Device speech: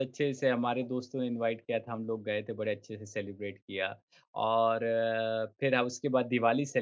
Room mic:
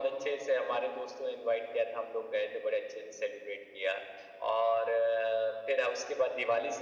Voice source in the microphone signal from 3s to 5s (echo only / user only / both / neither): echo only